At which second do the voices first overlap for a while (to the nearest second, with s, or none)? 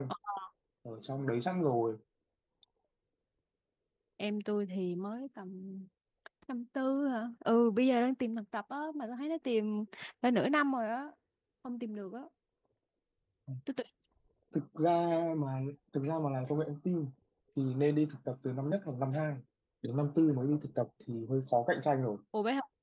none